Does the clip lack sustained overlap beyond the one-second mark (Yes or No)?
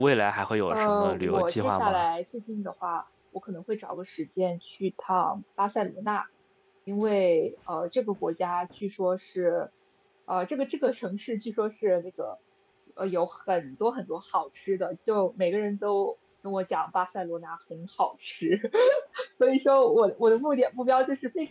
No